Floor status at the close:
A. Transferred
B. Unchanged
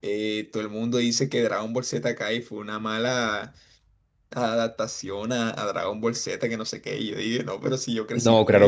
A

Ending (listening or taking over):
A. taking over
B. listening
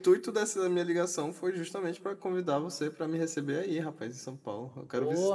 A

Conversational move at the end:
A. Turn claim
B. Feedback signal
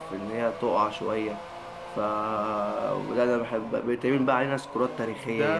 A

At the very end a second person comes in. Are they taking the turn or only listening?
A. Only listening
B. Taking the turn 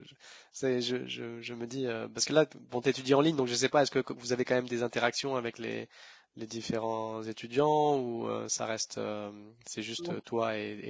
A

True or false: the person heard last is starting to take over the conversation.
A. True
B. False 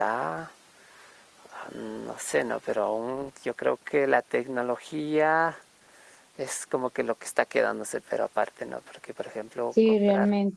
A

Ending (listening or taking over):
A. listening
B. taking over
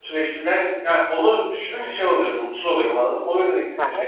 B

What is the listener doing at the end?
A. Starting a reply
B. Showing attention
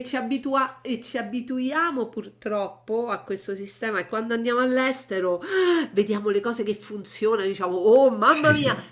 B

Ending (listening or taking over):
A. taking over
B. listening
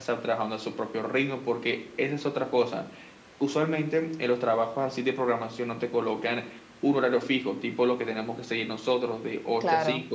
B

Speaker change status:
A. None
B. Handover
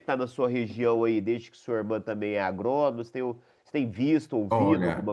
B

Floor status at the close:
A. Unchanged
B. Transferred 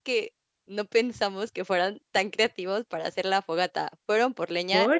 A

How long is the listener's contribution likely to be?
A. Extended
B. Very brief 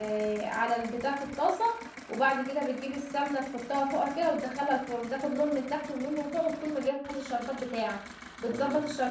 B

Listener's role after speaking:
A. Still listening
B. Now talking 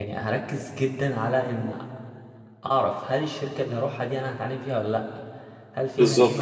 A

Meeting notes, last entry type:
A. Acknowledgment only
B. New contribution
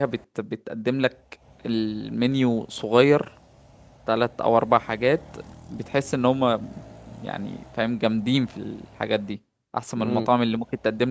A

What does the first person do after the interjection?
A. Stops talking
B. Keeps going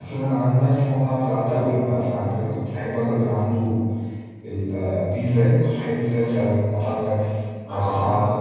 A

